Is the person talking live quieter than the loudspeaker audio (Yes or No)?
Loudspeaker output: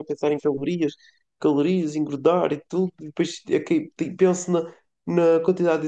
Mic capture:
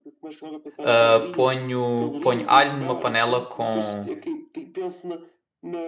No